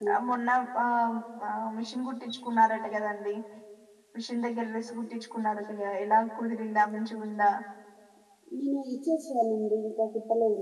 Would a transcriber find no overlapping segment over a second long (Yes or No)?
Yes